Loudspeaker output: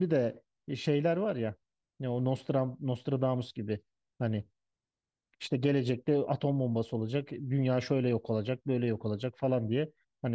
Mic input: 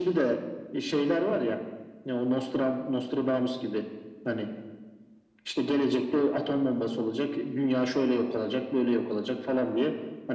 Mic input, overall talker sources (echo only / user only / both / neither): echo only